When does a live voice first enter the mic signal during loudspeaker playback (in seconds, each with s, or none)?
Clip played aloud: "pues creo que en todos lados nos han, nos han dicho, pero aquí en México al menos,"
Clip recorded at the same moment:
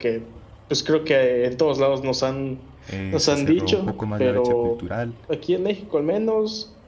2.9 s